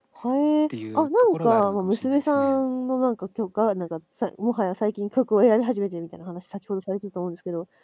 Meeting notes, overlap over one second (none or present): present